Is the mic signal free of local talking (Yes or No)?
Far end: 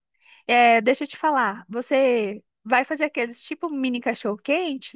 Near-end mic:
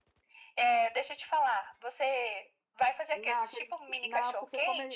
No